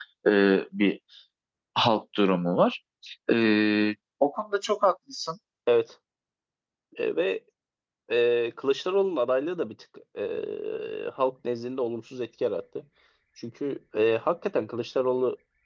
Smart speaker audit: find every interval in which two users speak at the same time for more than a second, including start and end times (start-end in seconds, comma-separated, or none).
none